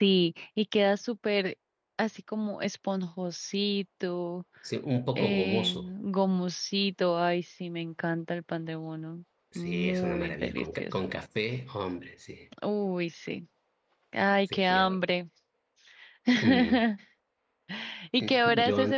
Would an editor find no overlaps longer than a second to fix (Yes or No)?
No